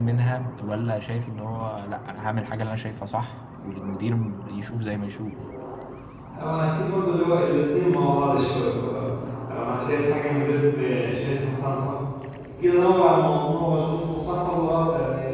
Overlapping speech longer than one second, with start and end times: none

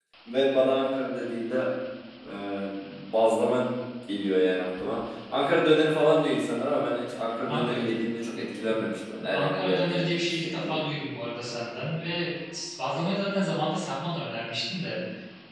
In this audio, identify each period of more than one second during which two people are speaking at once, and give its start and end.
9.3-10.8

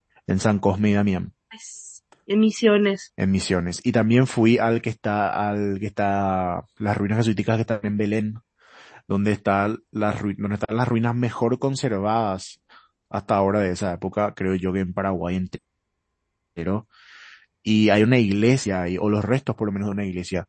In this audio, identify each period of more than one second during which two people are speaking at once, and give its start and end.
none

